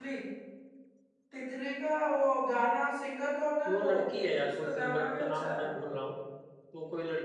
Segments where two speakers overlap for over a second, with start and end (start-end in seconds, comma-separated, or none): 4.4-5.7